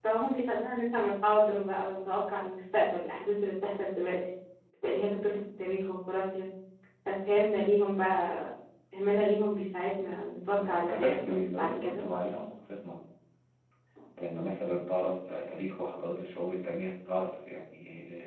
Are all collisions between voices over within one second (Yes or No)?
No